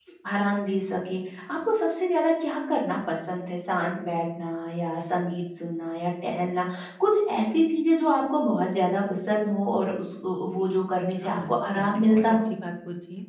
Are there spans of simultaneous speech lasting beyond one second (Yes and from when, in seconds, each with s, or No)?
Yes, from 11.2 s